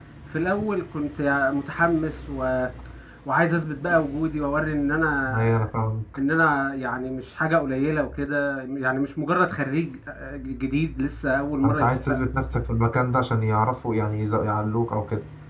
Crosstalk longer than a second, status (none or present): none